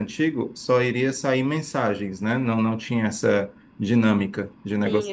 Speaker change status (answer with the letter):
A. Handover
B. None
A